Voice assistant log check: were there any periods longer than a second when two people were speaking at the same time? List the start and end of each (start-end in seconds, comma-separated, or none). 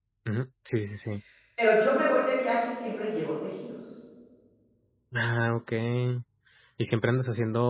none